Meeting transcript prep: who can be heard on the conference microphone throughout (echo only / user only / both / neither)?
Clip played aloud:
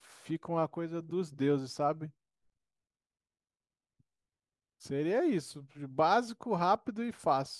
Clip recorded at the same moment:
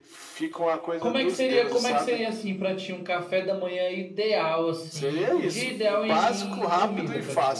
both